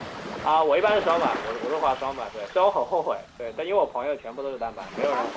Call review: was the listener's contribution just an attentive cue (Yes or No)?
Yes